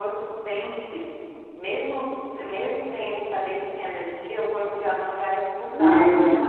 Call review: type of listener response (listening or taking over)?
taking over